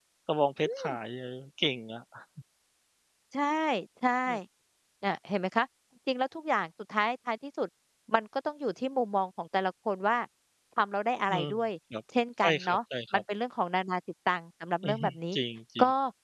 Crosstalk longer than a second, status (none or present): none